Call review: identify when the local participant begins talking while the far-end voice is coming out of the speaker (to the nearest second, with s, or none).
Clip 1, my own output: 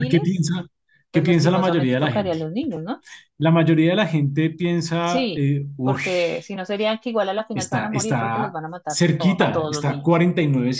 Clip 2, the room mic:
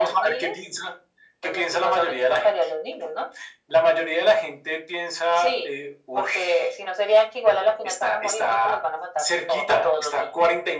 none